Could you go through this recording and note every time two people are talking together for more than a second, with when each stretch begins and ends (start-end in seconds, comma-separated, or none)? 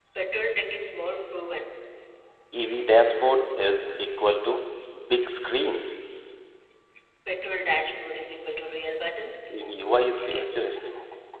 none